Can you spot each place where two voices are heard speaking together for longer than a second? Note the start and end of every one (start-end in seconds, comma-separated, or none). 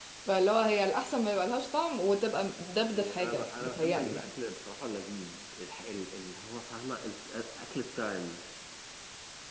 2.9-4.3